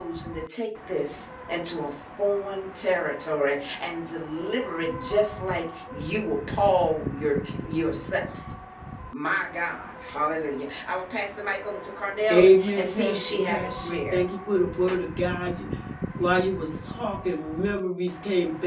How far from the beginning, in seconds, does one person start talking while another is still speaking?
12.3 s

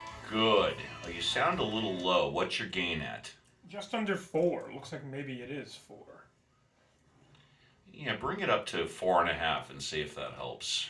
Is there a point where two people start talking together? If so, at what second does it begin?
none

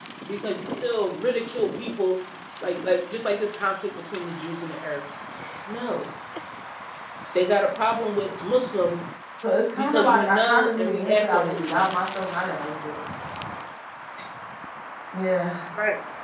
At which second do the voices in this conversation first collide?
9.7 s

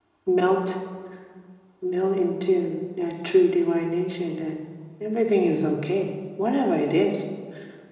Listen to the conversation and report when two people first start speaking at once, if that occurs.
none

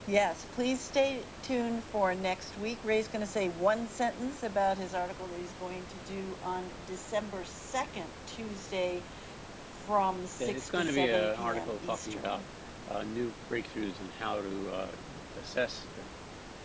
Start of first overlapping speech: 10.4 s

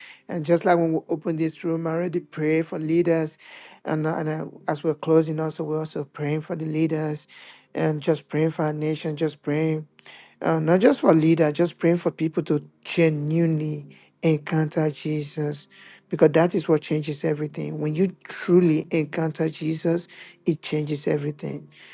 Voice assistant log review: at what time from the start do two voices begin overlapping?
none

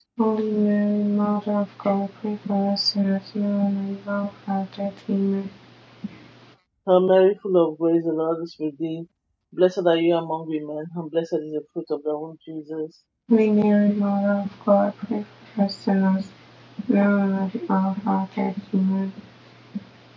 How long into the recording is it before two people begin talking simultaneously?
none

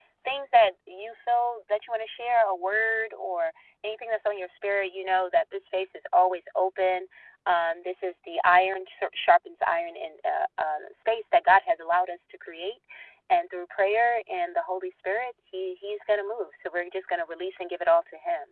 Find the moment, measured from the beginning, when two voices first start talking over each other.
none

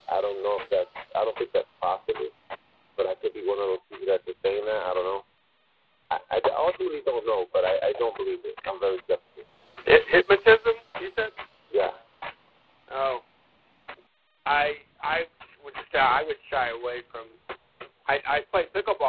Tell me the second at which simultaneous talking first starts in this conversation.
none

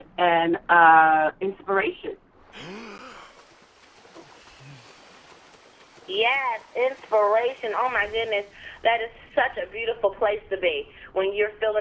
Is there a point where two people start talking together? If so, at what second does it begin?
none

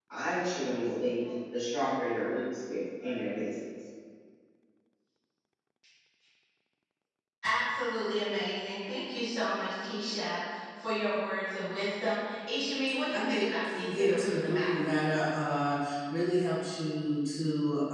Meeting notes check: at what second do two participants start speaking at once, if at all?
12.9 s

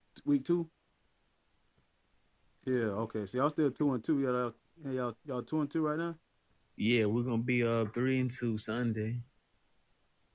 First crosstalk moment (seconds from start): none

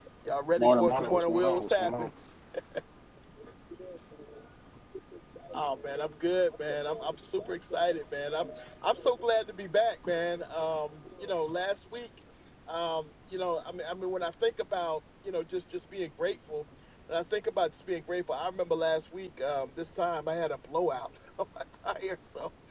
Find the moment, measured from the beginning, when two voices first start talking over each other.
0.6 s

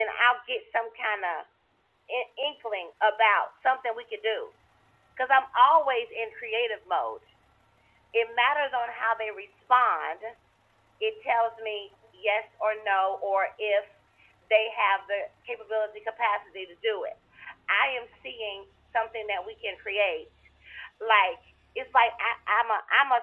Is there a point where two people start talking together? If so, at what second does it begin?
none

